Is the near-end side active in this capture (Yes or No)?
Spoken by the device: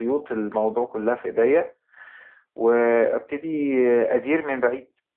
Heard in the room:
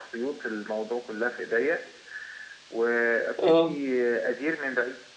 Yes